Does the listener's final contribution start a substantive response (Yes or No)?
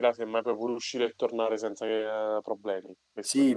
Yes